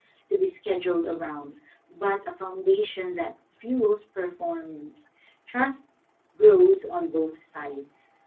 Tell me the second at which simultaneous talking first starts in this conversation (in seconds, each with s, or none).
none